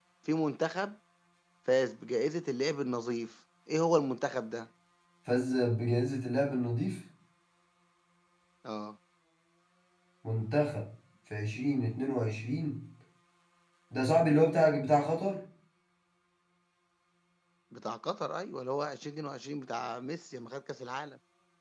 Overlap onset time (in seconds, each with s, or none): none